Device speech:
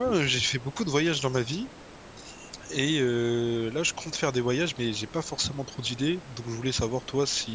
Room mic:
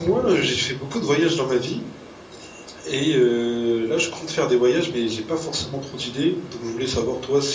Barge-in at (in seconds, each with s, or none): none